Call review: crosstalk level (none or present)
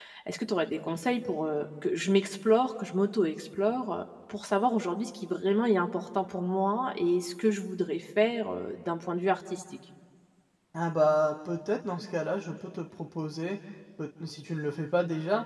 none